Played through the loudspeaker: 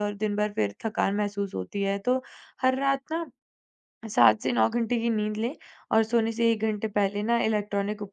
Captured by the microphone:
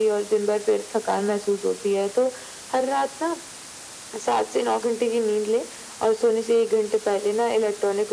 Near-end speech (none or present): none